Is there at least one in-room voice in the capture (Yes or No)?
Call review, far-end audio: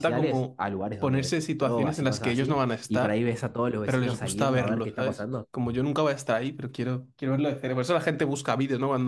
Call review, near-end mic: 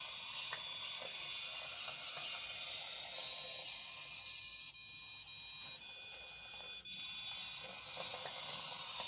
No